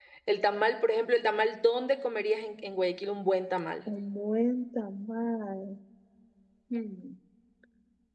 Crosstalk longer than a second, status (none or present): none